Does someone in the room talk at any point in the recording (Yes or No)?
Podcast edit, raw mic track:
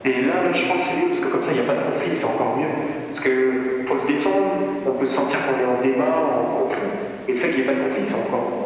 No